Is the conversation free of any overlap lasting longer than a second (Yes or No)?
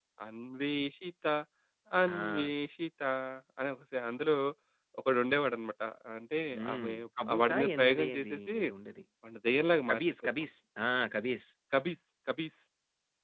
No